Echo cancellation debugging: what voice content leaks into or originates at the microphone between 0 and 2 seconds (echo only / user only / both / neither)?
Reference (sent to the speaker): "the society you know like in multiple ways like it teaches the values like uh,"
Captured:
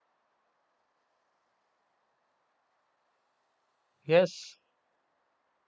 neither